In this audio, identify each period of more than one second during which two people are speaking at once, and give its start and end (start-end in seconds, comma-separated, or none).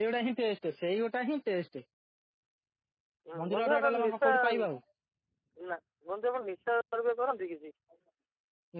3.4-4.7